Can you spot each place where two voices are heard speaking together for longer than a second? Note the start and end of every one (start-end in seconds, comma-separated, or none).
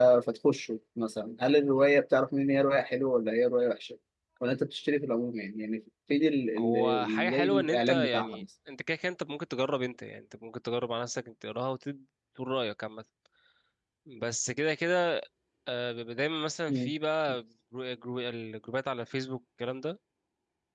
6.6-8.4